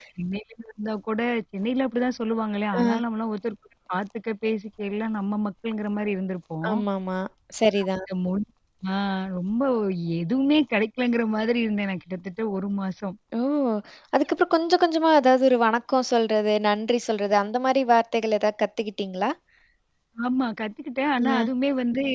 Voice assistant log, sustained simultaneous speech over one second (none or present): none